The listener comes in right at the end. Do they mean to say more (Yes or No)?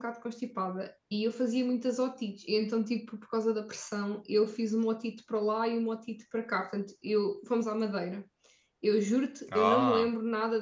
No